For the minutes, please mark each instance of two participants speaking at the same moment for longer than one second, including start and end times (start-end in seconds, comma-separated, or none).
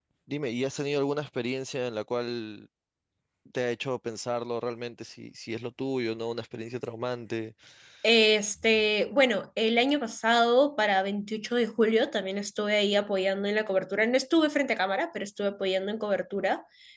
none